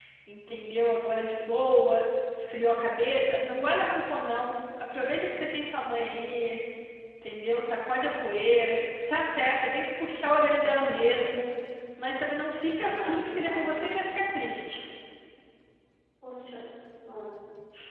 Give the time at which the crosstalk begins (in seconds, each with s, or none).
12.8 s